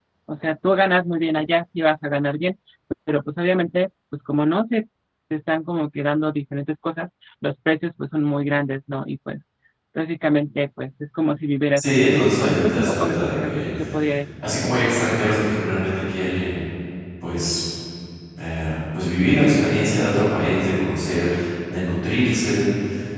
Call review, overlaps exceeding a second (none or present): present